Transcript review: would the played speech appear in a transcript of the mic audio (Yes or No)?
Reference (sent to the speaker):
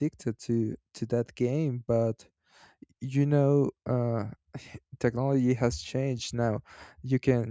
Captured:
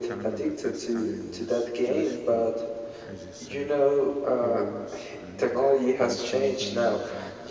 Yes